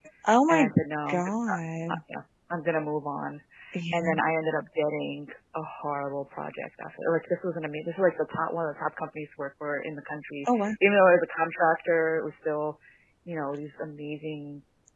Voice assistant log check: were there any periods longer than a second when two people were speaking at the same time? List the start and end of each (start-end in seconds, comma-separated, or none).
none